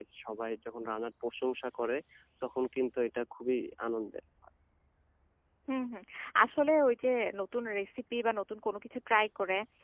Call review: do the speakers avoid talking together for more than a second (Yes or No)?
Yes